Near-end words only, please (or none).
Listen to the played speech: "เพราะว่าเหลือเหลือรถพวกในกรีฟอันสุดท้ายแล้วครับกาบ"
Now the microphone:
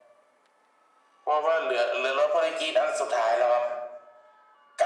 none